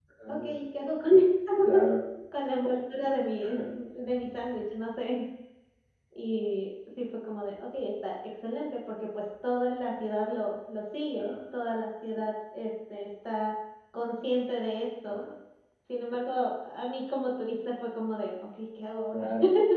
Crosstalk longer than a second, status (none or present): none